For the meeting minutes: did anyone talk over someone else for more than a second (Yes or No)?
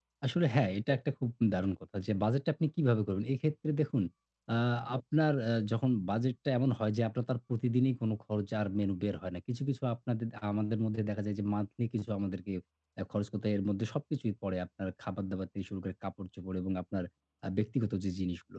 No